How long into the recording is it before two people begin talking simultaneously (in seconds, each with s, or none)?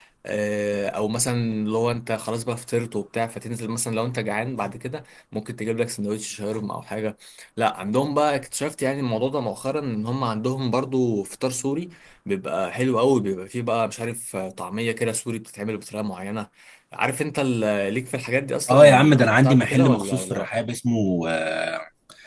18.7 s